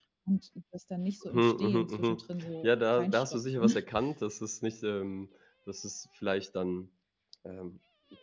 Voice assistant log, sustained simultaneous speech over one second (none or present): present